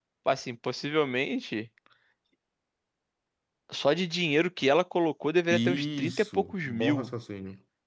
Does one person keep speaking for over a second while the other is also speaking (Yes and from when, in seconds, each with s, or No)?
Yes, from 5.5 s